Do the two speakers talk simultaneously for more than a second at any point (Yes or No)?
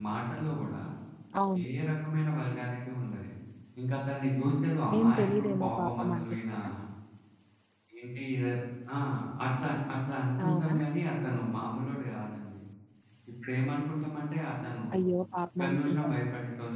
Yes